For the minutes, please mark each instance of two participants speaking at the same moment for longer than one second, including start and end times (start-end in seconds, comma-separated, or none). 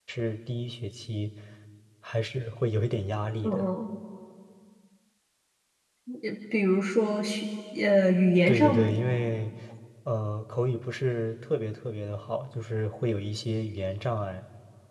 none